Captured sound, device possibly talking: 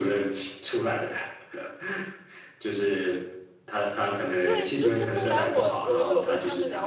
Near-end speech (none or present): present